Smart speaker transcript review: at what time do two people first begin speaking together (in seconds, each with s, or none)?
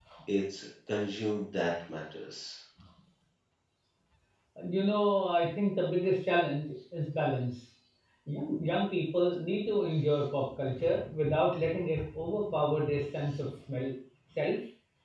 none